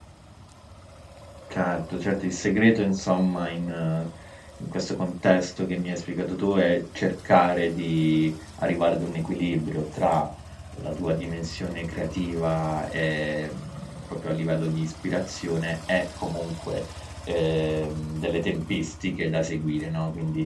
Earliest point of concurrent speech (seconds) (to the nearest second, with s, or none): none